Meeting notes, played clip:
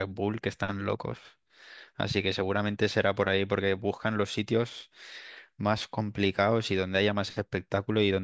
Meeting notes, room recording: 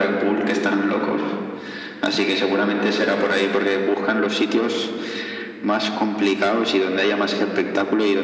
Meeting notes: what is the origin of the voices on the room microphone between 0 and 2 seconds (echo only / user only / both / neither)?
echo only